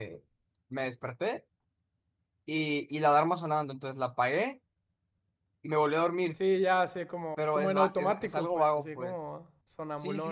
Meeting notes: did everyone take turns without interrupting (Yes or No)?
No